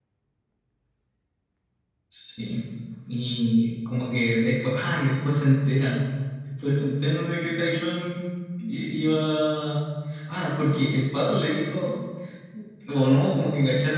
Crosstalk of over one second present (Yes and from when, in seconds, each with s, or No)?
No